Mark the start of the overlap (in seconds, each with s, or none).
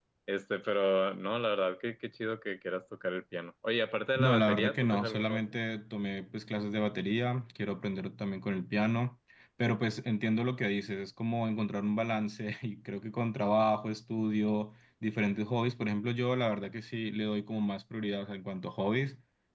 4.2 s